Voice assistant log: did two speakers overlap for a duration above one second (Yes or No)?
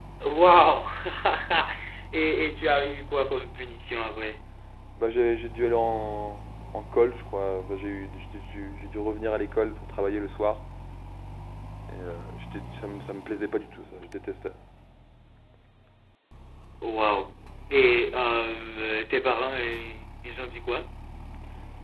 No